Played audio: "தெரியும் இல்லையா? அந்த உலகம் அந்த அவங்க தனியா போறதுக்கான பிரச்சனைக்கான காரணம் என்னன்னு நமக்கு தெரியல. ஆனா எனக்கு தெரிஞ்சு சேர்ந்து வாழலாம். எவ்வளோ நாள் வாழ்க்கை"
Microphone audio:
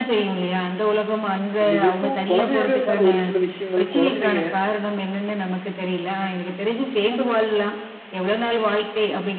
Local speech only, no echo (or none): கண்டிப்பா. இப்போ குழந்தையாவே இருந்தாலும் ஒரு சில விஷயங்கள் குழந்தைக